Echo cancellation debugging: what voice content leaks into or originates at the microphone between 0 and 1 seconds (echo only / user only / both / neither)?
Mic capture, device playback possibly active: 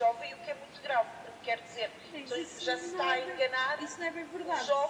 echo only